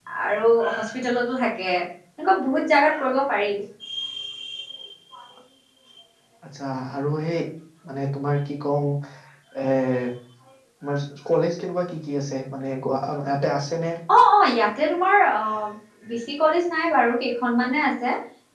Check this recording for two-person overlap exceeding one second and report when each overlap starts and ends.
none

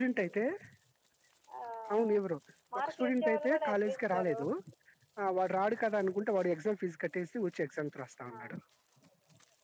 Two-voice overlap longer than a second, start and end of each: 2.8-4.4

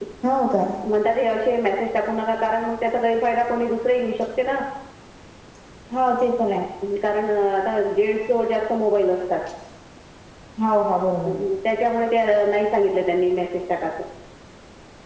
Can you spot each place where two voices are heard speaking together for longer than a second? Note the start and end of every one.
none

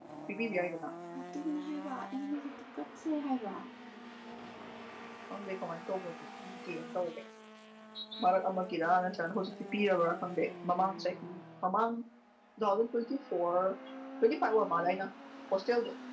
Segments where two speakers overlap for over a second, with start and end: none

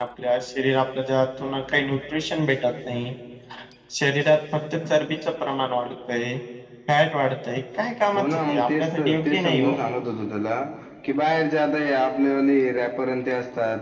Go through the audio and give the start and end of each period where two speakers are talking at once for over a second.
8.2-9.8

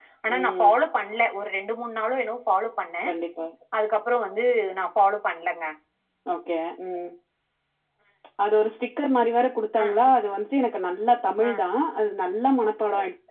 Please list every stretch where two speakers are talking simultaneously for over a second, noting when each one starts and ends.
none

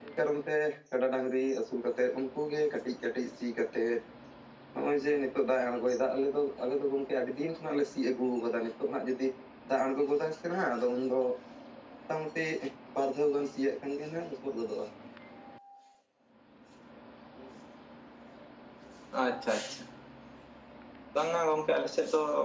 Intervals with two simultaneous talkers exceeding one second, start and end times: none

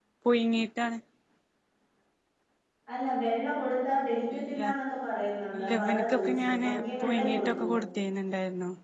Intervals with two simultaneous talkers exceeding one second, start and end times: 5.6-7.7

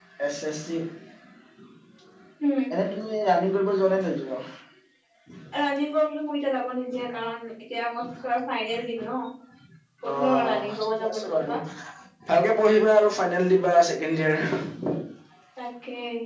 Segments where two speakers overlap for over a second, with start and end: 10.2-11.6

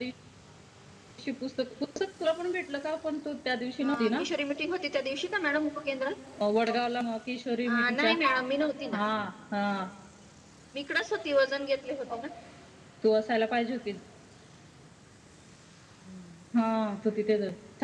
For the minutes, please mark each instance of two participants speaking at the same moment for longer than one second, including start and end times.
none

